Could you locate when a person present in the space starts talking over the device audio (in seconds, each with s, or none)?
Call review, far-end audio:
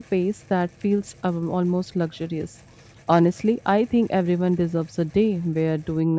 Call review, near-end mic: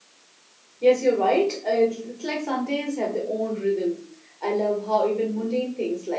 0.8 s